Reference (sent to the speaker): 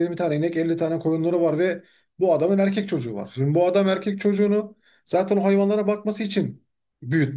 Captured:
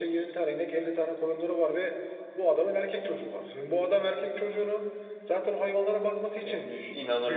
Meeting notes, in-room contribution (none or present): present